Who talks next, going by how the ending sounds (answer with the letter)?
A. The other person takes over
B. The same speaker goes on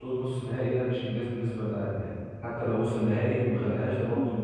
A